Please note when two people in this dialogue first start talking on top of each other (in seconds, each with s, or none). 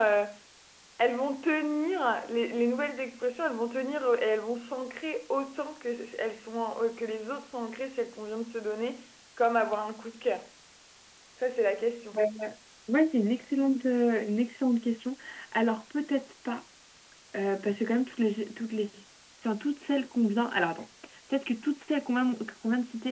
none